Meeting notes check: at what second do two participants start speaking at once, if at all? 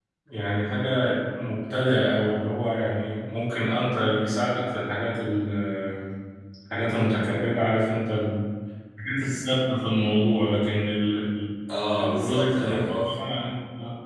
11.8 s

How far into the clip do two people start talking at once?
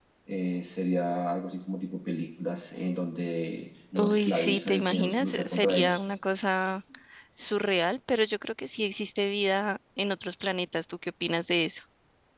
4.0 s

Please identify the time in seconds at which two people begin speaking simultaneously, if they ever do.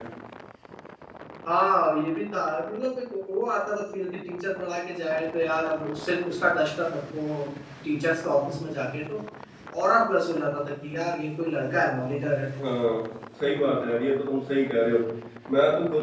none

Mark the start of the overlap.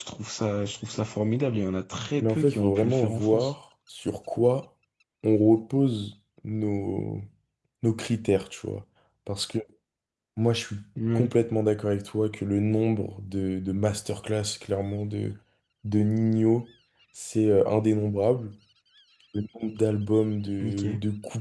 2.2 s

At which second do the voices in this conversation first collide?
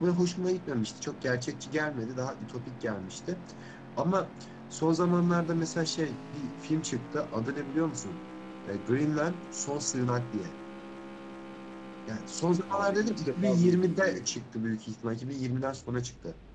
12.7 s

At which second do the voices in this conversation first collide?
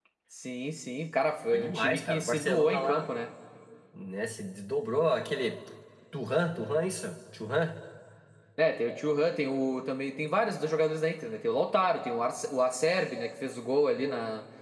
1.5 s

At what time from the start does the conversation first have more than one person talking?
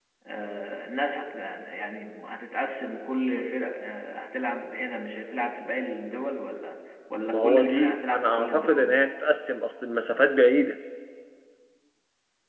7.3 s

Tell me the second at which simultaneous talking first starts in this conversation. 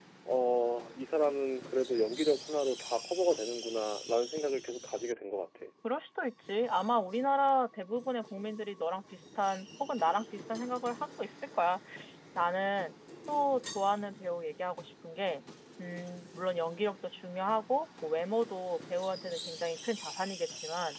none

